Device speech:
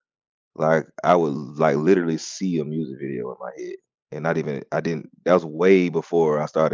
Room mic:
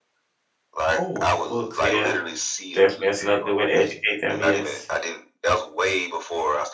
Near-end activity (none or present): present